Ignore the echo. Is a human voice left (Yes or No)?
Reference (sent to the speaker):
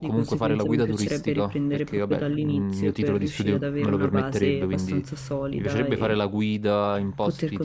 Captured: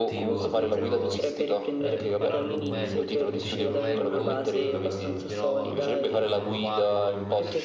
Yes